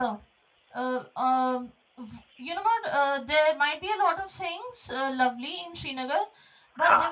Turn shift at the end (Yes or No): No